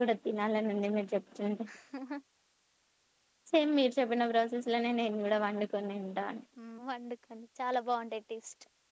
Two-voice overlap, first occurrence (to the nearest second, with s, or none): none